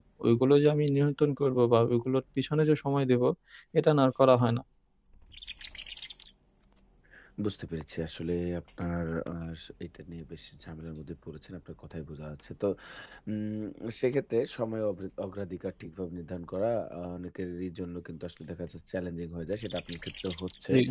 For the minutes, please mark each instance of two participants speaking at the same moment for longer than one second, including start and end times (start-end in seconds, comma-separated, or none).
none